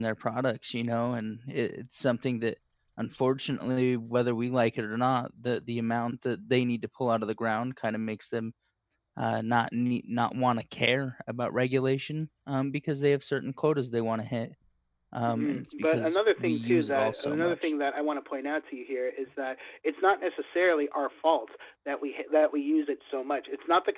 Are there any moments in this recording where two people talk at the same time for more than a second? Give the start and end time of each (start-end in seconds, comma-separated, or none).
15.3-17.7